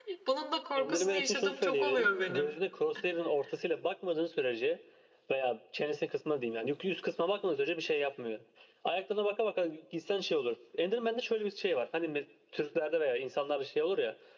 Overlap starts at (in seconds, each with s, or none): 0.8 s